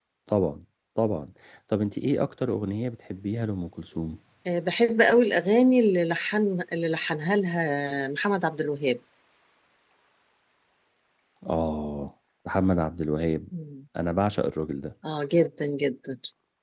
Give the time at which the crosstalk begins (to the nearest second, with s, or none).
none